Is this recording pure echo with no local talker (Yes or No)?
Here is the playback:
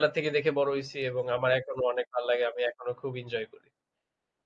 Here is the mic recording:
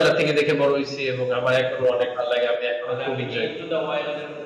No